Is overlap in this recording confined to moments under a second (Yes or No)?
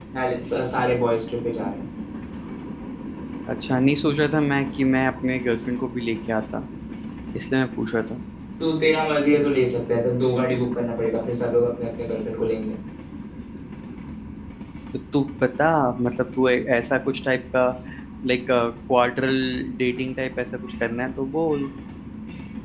Yes